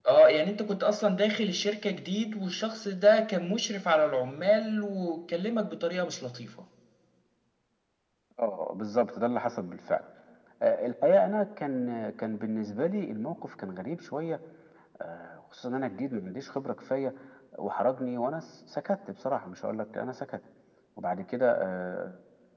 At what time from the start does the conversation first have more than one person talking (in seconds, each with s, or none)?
none